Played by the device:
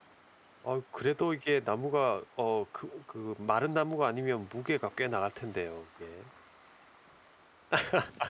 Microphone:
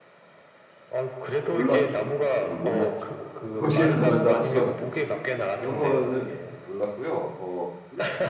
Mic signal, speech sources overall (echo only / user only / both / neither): both